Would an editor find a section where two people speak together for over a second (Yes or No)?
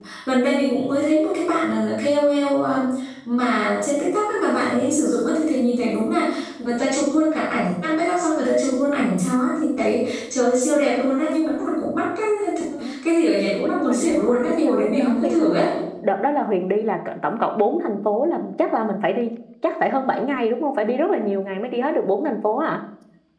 Yes